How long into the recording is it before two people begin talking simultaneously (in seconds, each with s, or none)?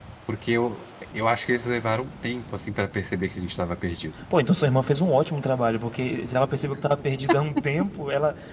none